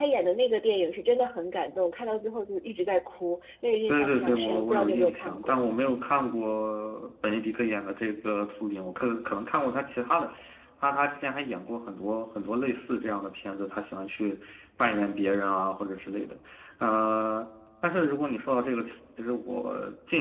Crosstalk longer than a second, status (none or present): present